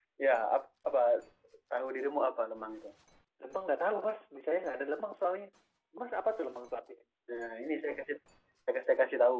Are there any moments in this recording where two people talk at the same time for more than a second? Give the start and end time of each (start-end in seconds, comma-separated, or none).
none